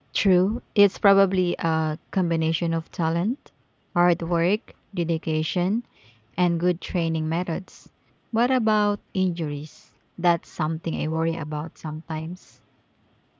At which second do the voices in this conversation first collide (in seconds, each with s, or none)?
none